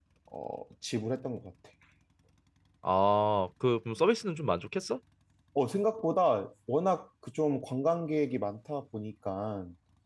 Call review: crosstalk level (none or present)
none